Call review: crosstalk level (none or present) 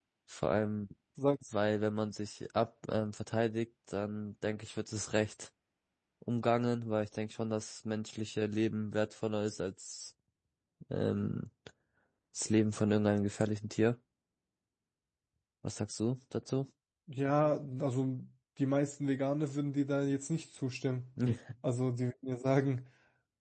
none